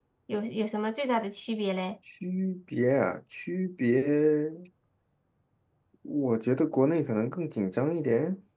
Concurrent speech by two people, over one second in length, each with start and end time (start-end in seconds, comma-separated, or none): none